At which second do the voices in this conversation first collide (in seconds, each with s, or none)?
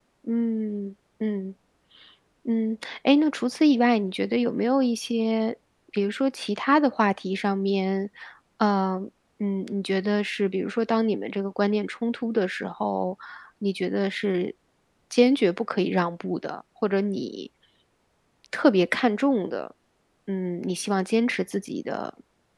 none